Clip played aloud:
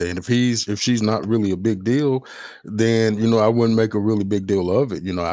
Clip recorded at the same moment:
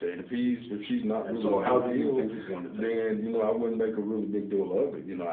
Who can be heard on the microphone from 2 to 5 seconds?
both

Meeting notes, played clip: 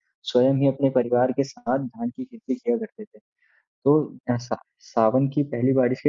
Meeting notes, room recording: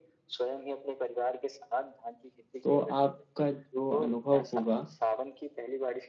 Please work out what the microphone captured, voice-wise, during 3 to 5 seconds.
both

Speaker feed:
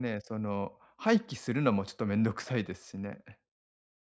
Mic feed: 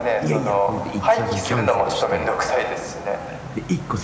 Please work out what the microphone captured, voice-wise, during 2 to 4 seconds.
both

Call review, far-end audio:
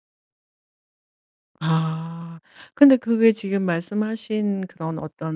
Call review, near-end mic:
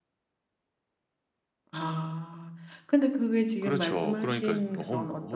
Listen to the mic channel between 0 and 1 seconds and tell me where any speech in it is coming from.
neither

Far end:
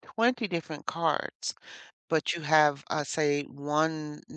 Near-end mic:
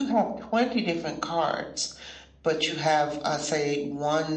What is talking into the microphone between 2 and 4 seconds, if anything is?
echo only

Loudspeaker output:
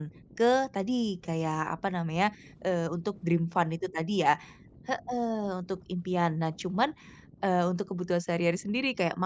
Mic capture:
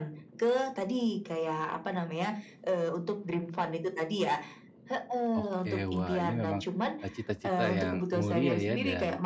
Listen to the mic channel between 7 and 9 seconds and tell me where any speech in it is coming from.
both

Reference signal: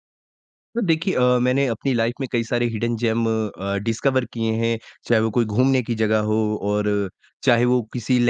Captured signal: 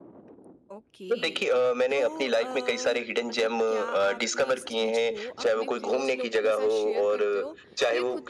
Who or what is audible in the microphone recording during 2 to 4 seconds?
both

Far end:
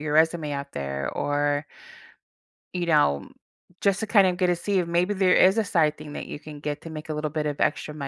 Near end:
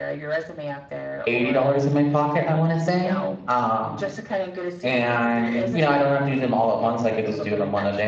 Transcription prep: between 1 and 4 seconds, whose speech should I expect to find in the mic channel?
both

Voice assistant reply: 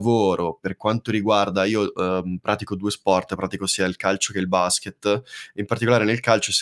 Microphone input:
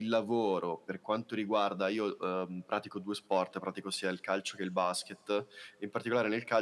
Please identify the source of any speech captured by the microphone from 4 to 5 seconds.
echo only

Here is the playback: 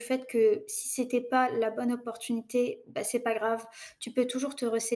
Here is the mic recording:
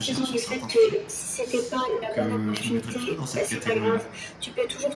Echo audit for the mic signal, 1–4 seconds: both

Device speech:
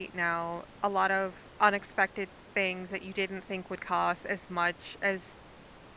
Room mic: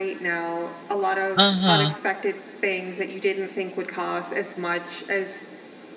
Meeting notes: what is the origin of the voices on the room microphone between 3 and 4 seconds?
echo only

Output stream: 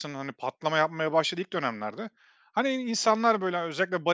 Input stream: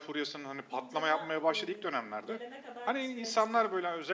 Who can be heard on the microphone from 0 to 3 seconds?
both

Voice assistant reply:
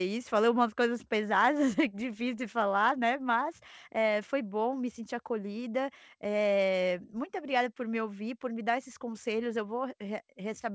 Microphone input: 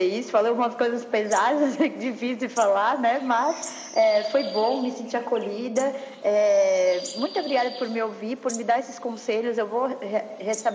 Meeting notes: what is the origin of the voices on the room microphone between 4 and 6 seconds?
echo only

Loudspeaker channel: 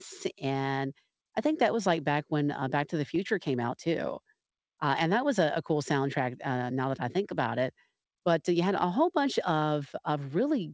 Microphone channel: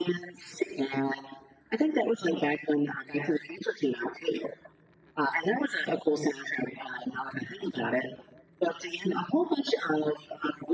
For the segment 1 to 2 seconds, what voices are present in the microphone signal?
echo only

